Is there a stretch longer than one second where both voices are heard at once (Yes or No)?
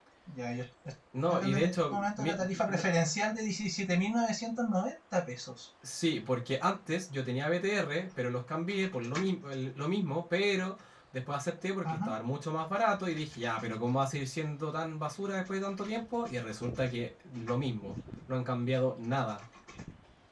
Yes